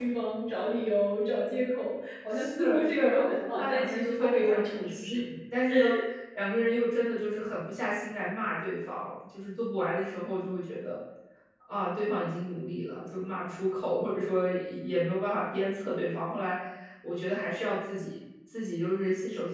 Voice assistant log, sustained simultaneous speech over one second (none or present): present